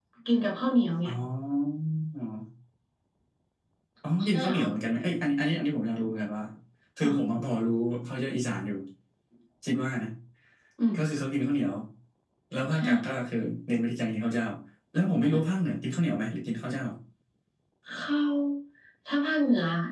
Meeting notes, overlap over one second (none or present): none